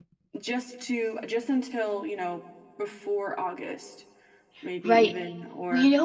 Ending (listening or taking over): taking over